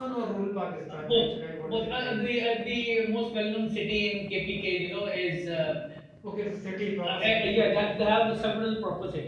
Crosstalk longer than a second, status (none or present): present